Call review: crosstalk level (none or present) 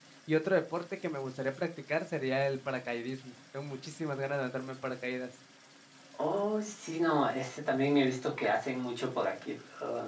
none